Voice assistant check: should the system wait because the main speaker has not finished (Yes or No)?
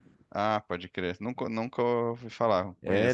No